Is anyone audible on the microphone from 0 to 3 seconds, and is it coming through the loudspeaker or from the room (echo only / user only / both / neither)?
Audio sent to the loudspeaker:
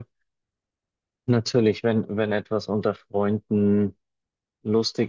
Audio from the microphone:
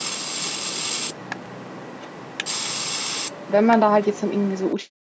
neither